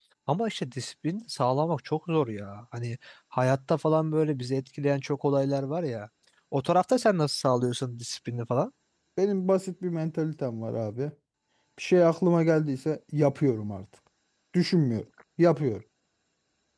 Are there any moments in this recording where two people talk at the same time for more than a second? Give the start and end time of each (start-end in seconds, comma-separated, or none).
none